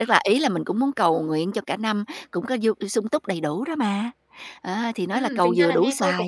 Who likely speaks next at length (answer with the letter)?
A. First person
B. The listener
B